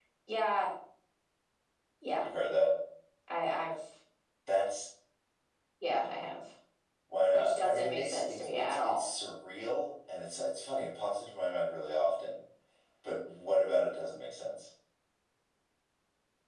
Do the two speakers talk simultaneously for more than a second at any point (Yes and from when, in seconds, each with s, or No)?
Yes, from 7.3 s